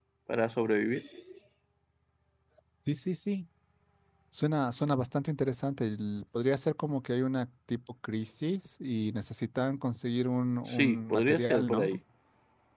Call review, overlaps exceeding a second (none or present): present